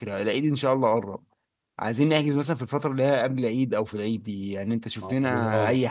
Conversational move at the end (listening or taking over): listening